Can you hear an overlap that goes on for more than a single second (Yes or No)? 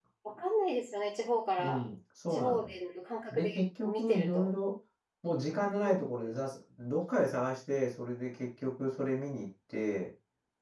Yes